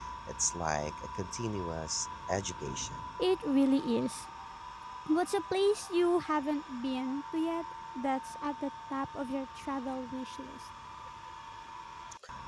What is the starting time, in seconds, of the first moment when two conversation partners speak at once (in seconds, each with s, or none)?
none